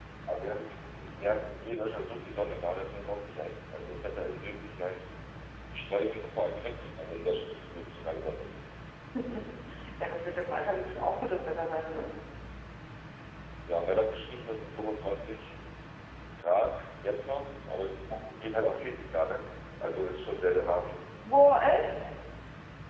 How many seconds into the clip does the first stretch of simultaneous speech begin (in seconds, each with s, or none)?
none